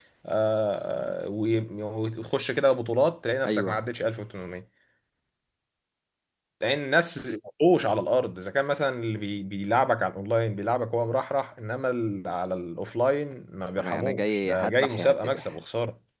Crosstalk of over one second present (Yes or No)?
Yes